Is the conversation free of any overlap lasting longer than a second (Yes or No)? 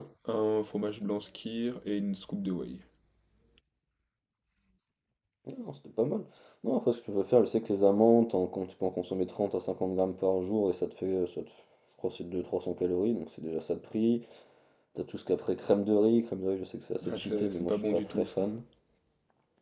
No